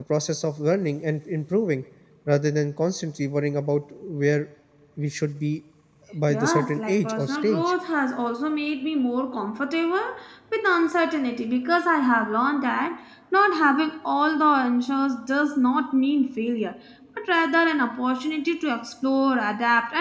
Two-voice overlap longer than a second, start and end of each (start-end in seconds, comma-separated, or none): 6.3-7.7